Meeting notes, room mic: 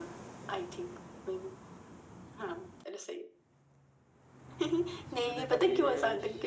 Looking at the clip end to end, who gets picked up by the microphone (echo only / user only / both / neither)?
both